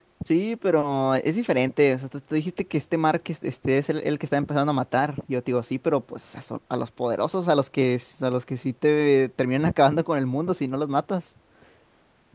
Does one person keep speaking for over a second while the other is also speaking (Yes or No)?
No